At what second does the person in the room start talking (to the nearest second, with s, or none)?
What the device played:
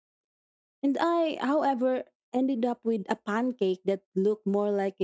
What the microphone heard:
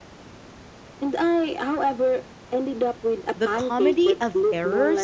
3 s